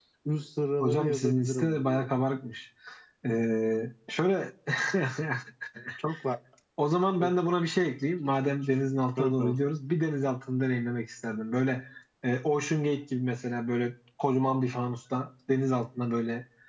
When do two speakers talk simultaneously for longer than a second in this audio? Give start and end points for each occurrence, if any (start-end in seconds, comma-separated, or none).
0.8-2.1